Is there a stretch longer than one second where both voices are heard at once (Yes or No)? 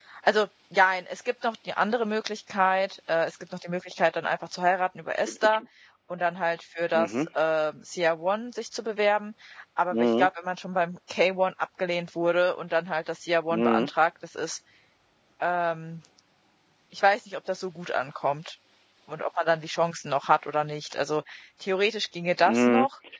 No